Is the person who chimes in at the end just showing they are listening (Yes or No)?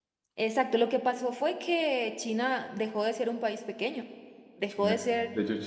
No